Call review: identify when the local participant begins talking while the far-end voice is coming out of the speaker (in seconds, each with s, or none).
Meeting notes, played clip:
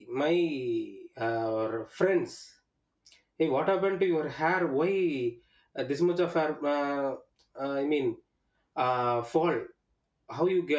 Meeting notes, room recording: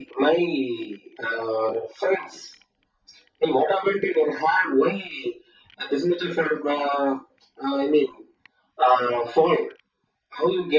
none